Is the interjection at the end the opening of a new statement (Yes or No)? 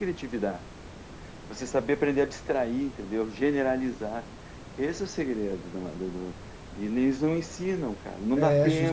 Yes